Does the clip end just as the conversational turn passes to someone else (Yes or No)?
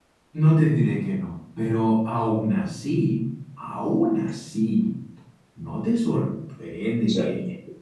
No